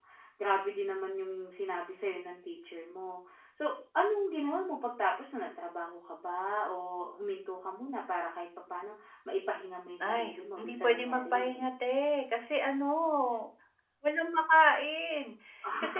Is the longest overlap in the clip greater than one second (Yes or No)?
Yes